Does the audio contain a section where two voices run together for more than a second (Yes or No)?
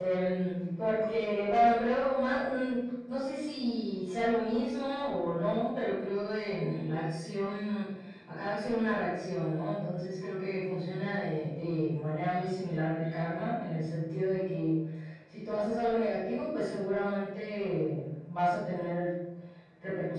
No